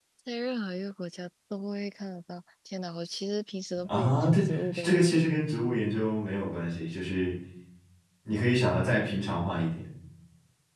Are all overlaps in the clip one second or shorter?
No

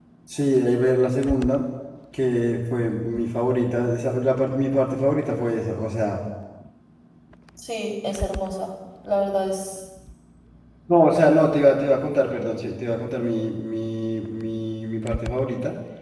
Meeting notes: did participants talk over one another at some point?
No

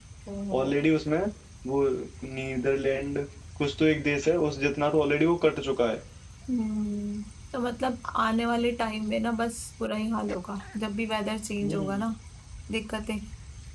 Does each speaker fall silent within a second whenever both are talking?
Yes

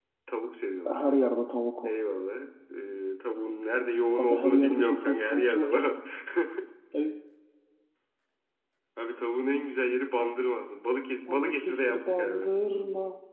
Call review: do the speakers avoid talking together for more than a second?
No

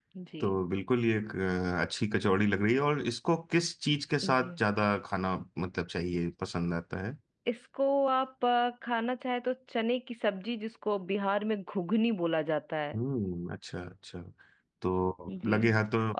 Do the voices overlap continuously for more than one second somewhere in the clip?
No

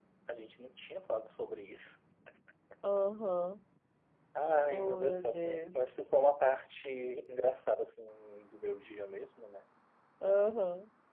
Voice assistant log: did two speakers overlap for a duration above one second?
Yes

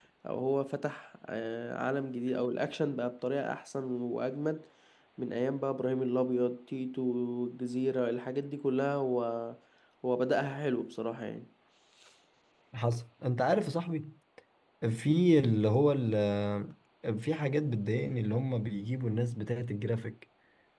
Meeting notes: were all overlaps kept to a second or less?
Yes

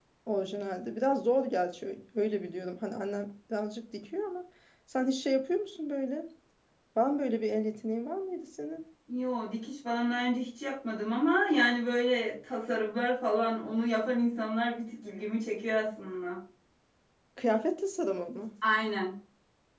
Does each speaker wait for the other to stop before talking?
Yes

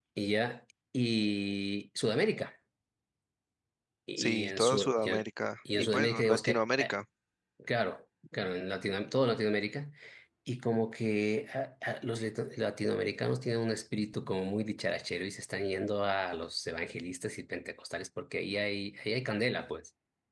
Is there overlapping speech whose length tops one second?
Yes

